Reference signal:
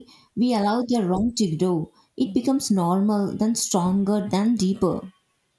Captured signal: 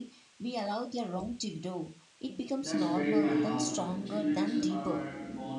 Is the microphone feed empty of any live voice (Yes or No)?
No